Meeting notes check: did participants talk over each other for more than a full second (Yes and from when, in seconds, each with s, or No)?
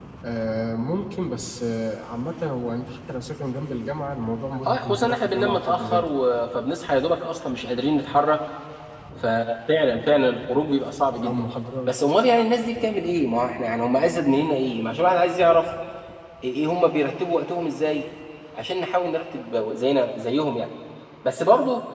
Yes, from 4.6 s